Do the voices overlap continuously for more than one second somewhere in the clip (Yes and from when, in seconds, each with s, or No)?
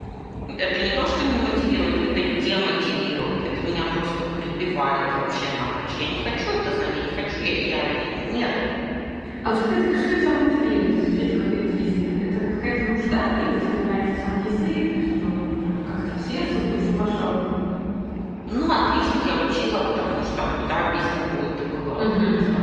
No